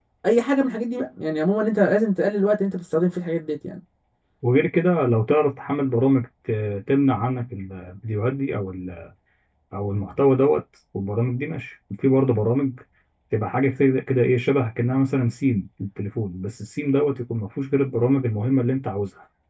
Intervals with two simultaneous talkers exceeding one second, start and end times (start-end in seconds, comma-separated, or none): none